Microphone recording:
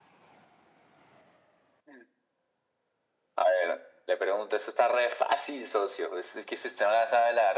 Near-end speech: none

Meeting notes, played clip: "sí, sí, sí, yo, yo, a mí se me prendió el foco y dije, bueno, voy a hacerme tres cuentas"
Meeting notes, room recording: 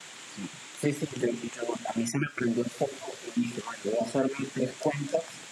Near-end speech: none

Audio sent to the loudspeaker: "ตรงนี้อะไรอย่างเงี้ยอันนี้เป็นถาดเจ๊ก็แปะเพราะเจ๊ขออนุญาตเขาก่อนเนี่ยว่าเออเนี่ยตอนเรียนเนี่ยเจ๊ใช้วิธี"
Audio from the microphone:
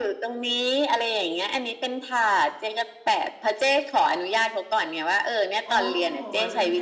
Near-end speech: present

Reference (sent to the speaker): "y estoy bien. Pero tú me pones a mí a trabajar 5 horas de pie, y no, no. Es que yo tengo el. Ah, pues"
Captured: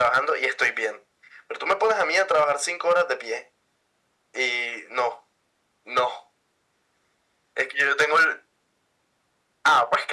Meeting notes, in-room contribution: none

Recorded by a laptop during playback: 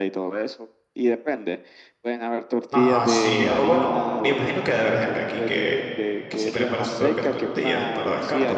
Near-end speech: present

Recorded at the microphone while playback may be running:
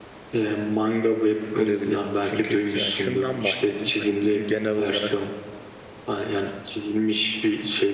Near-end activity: present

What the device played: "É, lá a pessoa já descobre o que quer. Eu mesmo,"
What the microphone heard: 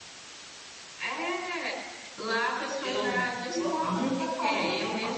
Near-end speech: present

